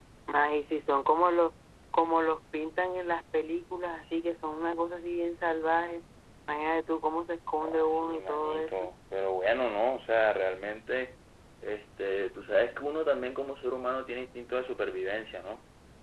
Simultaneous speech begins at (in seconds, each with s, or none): 7.6 s